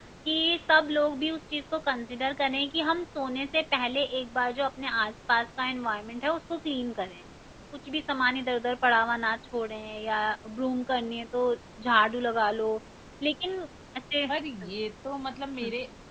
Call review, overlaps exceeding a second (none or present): none